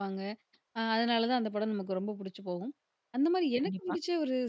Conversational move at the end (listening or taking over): listening